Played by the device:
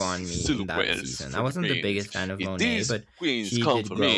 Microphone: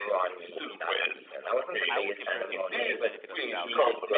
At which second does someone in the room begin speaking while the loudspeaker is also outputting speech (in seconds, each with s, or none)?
1.9 s